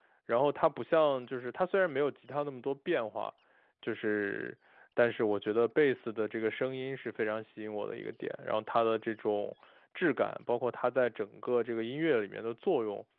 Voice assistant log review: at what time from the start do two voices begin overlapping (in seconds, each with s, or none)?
none